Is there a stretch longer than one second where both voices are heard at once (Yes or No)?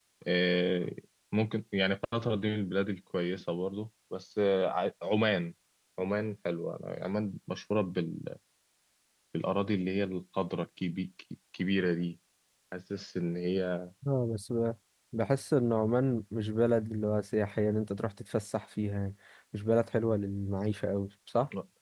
No